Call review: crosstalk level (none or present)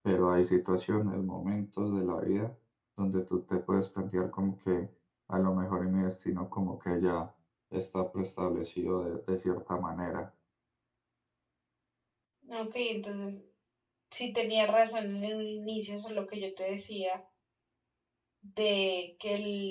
none